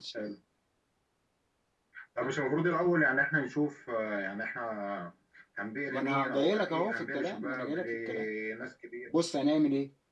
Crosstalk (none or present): present